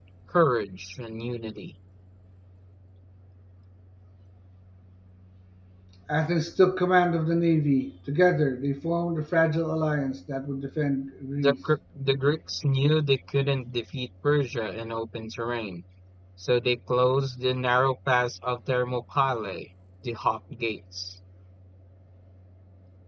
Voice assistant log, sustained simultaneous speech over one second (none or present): none